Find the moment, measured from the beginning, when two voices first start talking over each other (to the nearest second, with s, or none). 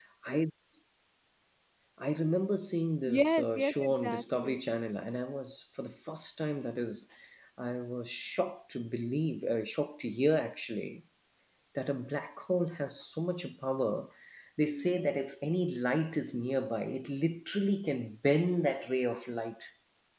3 s